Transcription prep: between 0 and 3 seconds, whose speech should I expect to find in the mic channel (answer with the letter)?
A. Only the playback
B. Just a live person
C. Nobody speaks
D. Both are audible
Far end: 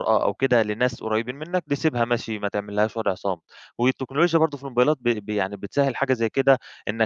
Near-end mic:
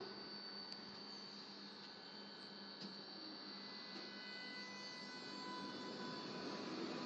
C